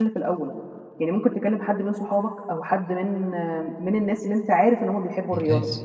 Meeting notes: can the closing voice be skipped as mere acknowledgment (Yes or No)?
Yes